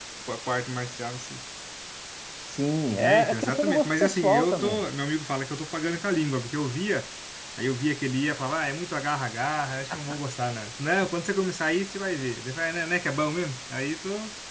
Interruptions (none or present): present